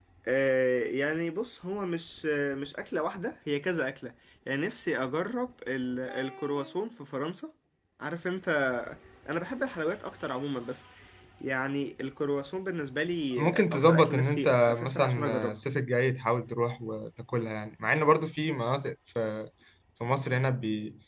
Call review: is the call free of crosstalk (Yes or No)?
No